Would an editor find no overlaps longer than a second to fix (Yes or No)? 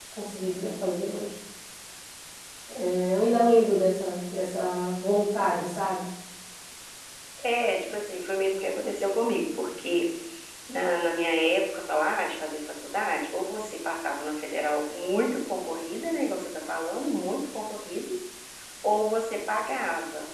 Yes